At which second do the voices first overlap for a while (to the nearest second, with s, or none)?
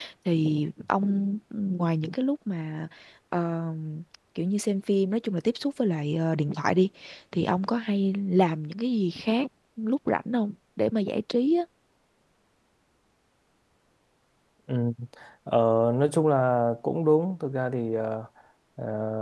none